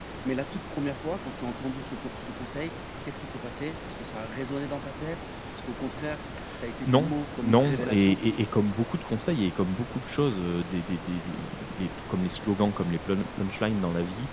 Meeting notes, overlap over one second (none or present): present